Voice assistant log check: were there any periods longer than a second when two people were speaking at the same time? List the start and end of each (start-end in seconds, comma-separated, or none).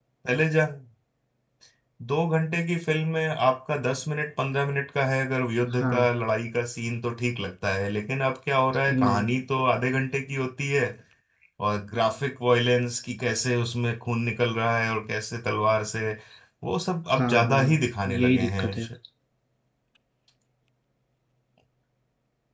17.2-18.7